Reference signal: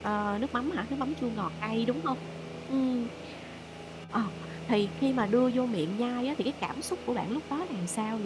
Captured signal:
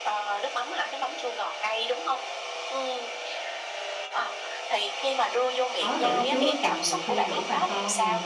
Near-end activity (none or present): present